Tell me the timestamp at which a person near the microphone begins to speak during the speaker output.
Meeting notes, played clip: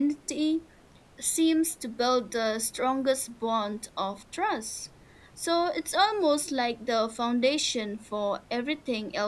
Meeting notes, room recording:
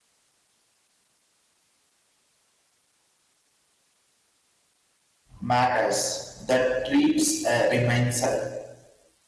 5.4 s

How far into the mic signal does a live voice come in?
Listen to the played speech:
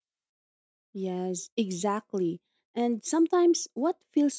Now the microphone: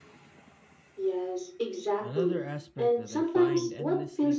2.0 s

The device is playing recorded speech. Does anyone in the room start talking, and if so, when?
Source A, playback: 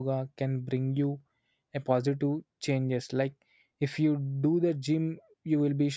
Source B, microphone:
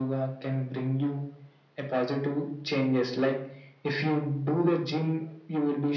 none

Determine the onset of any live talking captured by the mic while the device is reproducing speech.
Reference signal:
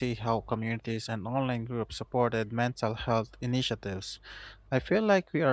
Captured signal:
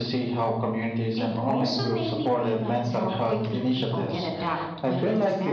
1.1 s

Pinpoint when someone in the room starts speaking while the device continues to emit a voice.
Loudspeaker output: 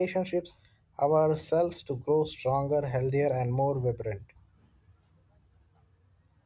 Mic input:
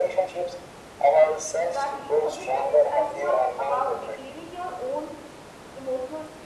1.5 s

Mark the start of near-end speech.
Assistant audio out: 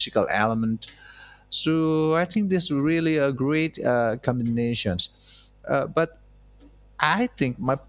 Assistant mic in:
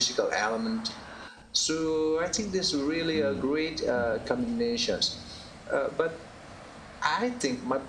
3.1 s

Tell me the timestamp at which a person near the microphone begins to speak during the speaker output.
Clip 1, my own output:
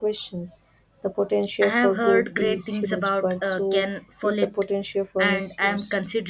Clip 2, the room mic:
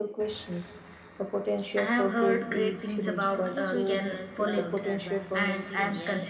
3.2 s

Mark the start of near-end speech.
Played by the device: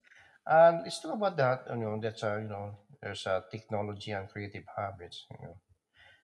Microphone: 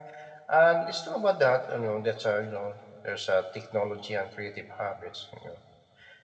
none

